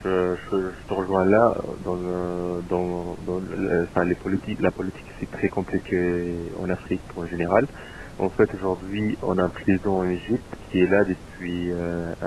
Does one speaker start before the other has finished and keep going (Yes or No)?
No